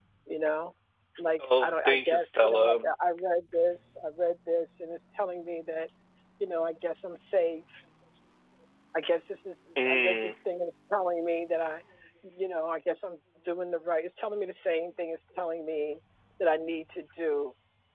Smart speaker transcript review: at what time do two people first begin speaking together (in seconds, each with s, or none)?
1.4 s